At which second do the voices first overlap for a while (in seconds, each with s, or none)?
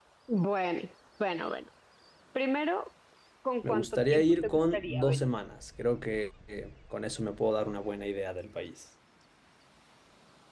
3.6 s